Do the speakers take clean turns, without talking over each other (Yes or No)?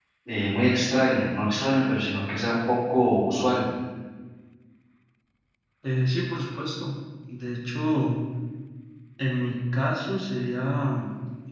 Yes